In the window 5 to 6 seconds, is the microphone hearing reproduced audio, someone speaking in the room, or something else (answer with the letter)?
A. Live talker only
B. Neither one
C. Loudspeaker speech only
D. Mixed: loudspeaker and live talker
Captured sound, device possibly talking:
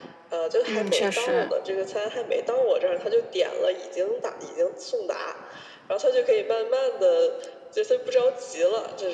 C